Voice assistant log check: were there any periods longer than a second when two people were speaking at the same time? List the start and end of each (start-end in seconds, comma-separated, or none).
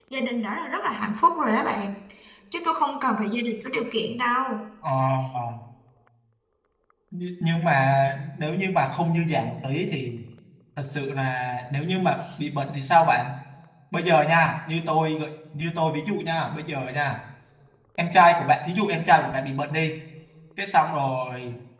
none